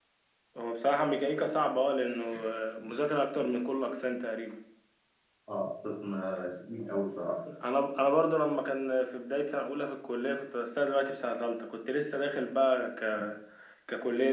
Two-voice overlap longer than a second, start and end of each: none

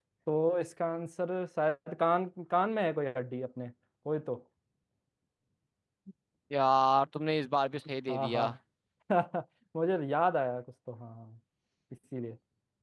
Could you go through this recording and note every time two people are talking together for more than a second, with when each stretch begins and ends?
none

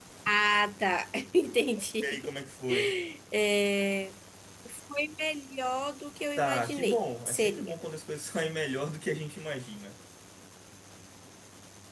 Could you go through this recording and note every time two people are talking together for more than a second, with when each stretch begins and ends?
6.4-7.7

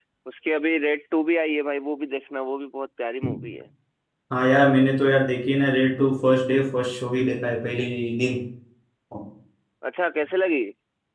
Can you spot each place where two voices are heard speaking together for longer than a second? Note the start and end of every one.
none

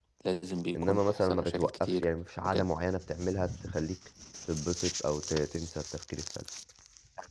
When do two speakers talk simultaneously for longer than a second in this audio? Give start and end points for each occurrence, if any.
0.8-2.0

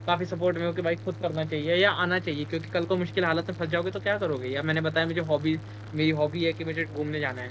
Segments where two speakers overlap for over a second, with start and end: none

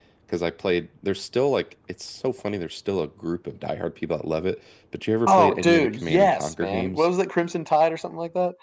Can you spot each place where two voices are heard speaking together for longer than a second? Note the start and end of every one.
5.3-7.1

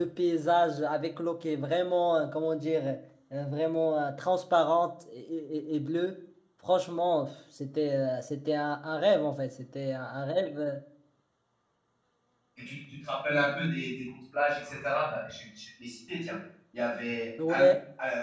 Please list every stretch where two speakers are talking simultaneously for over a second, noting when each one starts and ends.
none

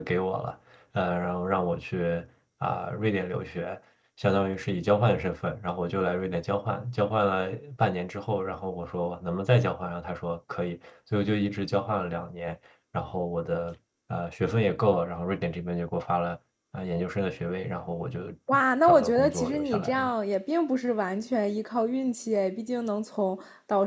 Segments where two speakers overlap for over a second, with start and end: 18.9-20.1

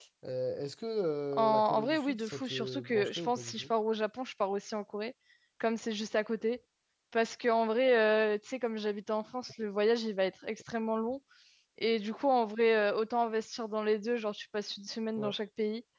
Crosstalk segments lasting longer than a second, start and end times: 1.4-3.7

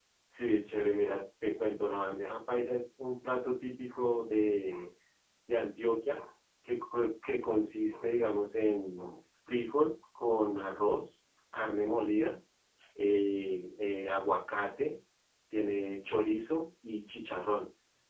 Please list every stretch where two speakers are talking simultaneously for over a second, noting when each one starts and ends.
none

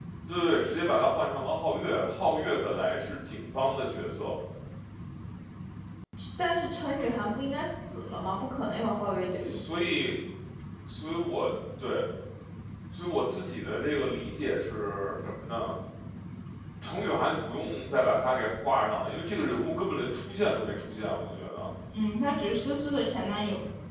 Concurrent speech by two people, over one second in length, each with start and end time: none

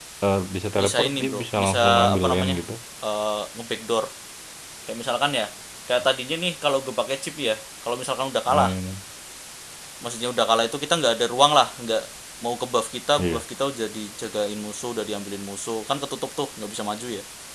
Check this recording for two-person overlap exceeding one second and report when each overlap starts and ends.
0.8-2.6

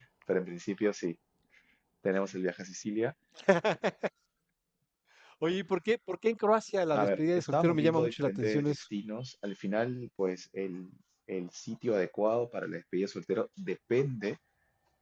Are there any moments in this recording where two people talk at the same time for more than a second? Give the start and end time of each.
6.9-8.8

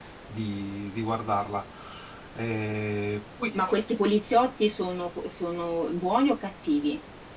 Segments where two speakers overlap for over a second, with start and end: none

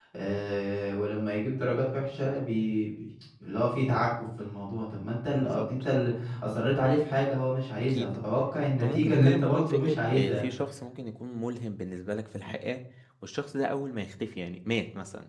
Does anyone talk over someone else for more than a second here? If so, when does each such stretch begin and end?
8.8-10.4

